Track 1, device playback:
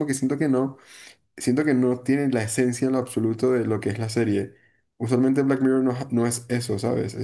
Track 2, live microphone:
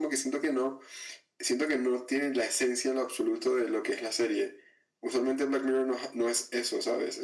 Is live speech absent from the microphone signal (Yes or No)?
Yes